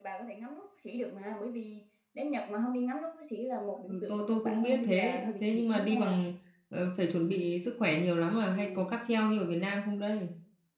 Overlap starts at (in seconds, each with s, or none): 3.9 s